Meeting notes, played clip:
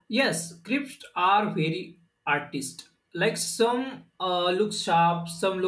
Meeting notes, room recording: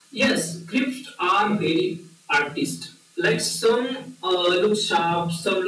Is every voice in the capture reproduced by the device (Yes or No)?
Yes